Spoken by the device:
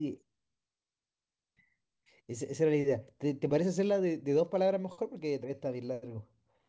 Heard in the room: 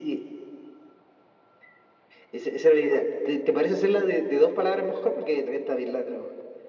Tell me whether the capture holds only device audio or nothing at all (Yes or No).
Yes